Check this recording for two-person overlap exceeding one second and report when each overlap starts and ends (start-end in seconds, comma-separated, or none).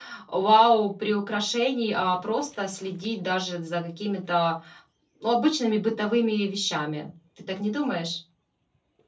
none